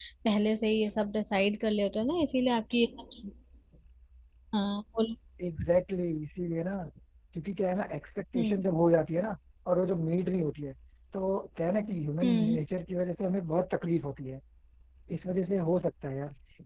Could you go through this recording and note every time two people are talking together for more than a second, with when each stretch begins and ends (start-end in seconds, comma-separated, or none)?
none